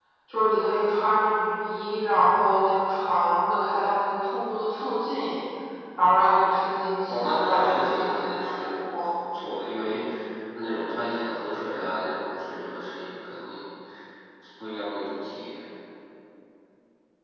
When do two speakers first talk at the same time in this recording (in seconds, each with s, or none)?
7.1 s